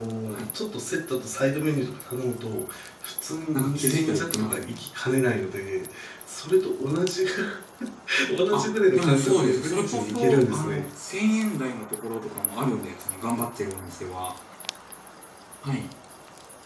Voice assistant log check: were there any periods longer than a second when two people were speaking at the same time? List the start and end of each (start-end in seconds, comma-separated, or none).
3.5-4.8, 8.5-10.8